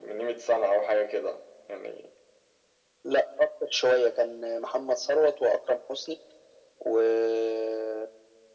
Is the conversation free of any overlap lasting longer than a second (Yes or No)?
Yes